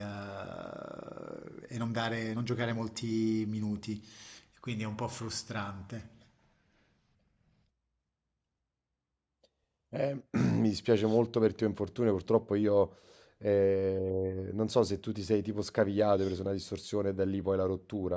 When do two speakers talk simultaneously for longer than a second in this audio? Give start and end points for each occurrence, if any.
none

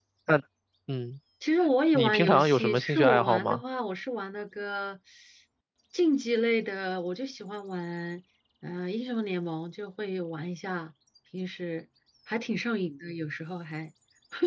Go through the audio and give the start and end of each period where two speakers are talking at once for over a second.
1.9-3.6

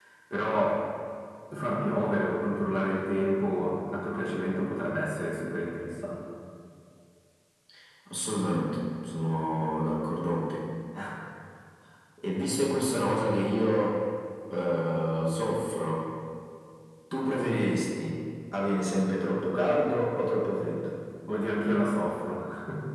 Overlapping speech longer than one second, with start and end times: none

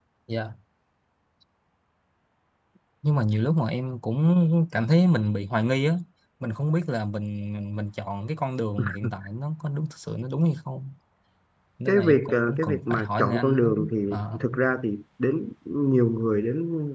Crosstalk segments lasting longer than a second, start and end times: 11.9-13.7

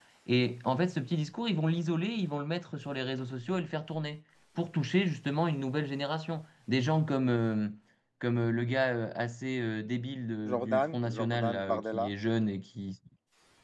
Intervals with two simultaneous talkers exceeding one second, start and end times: 10.5-12.1

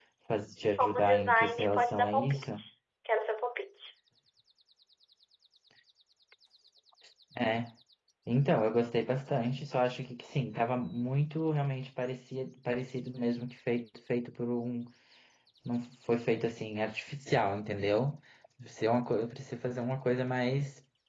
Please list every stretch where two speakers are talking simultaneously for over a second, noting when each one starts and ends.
0.8-2.4

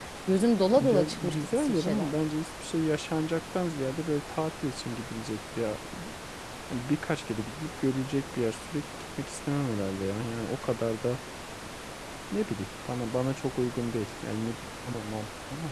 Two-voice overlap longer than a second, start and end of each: 0.8-2.2

